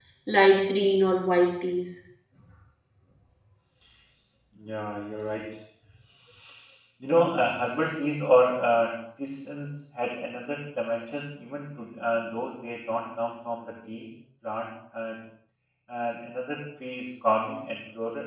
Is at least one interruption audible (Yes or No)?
No